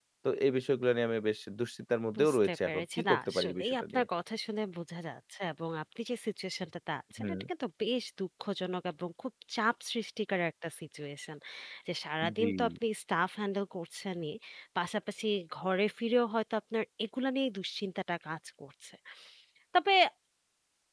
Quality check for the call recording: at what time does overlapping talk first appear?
2.2 s

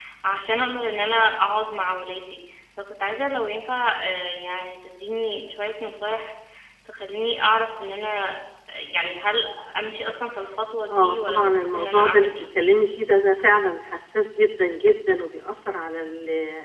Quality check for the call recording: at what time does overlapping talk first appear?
10.9 s

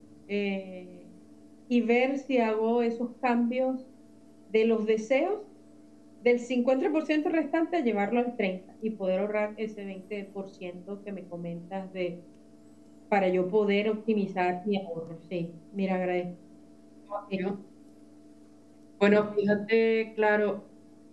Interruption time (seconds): none

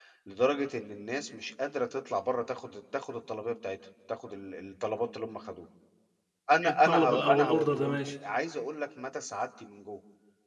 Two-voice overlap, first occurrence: 6.7 s

